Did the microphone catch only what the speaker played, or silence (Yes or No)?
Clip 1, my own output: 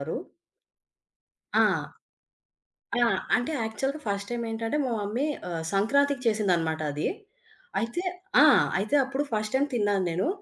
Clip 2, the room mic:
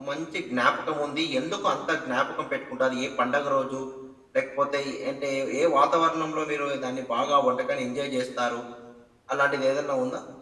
No